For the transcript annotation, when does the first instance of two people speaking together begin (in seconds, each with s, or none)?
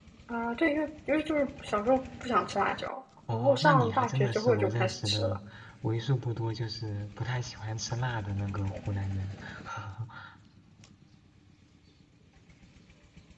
3.3 s